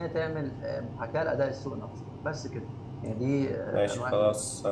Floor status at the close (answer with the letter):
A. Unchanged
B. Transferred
B